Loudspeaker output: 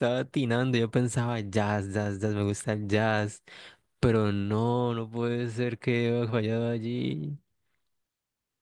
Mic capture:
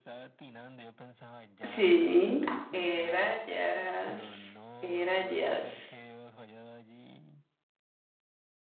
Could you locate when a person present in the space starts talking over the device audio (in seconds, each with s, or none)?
1.6 s